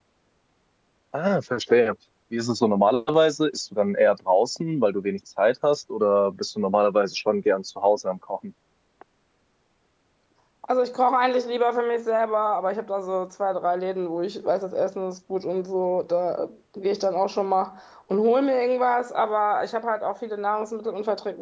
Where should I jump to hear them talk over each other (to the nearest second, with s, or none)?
none